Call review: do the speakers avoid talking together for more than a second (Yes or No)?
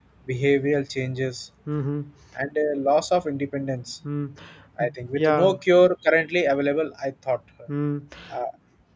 Yes